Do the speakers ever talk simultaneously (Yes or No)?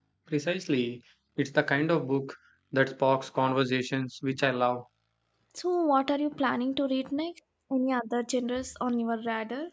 No